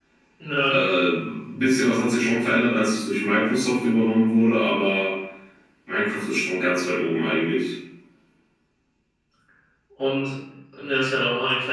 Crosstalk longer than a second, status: none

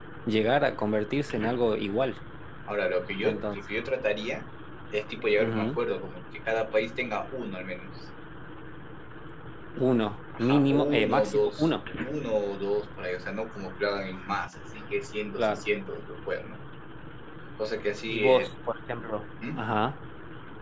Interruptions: present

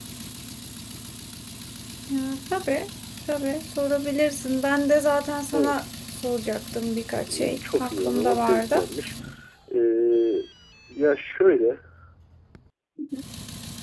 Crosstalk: present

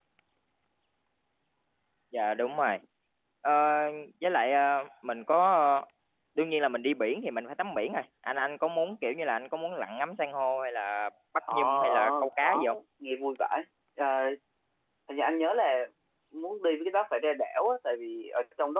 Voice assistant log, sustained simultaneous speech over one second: present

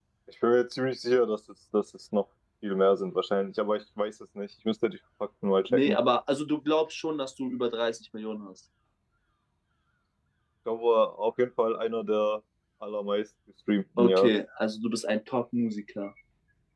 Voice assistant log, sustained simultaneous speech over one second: none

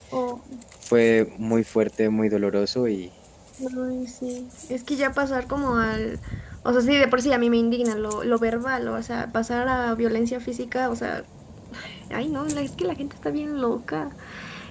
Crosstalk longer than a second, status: none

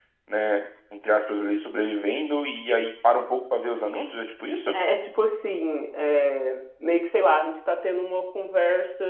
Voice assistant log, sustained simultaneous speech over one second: none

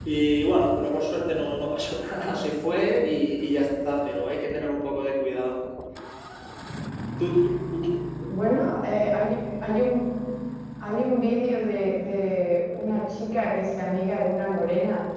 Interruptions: none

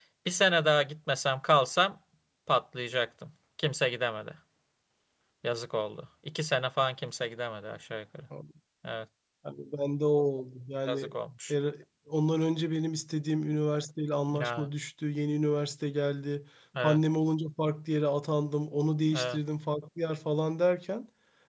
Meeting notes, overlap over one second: none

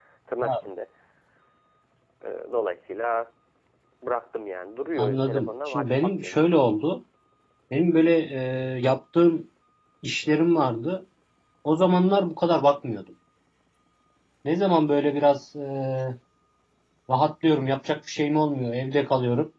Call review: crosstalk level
present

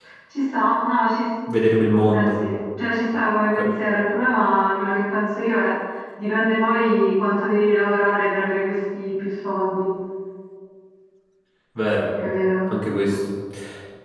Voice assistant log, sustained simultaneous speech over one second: none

